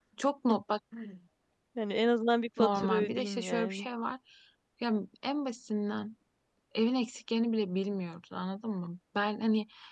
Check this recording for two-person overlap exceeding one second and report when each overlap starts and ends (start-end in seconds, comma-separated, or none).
2.6-3.9